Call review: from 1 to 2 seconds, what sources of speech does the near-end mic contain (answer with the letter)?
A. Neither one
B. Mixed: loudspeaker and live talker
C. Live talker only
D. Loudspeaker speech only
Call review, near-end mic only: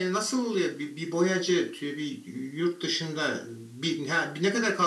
D